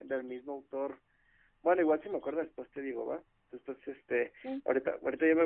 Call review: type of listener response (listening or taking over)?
listening